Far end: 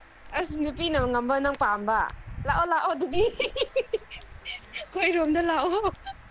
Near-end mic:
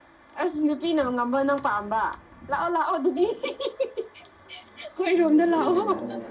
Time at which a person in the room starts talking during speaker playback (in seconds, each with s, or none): 5.1 s